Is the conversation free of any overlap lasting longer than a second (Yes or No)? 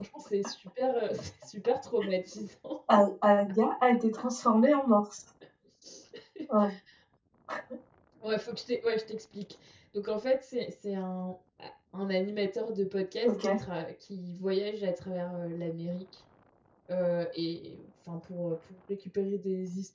Yes